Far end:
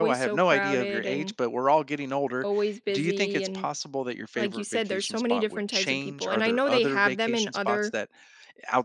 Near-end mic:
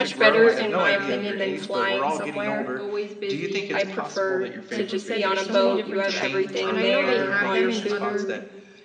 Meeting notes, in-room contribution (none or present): present